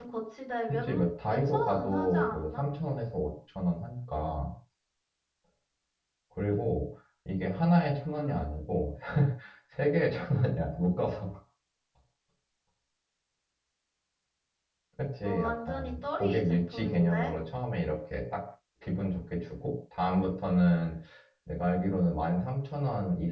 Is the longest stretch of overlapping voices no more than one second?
No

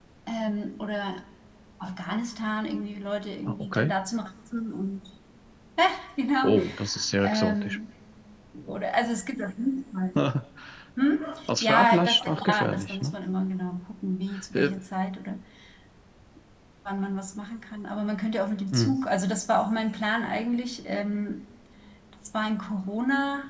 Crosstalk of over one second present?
Yes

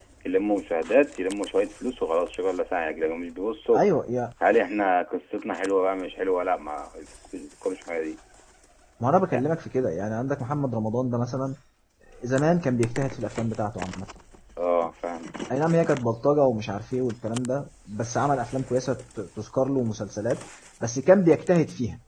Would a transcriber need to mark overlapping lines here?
No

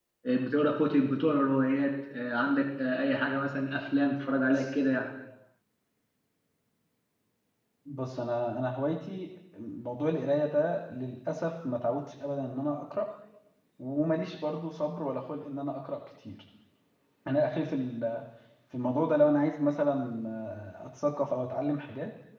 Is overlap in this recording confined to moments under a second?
Yes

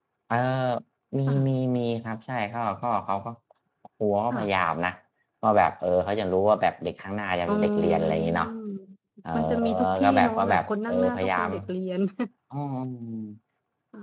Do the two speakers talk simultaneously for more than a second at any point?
Yes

